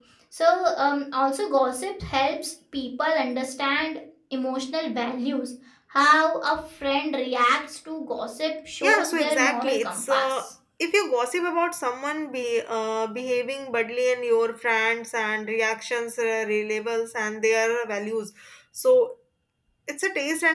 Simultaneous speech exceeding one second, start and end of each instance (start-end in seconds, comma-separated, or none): 8.8-10.5